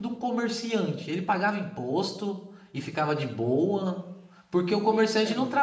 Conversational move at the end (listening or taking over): listening